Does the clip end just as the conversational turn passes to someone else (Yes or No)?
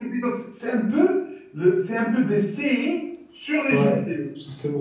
Yes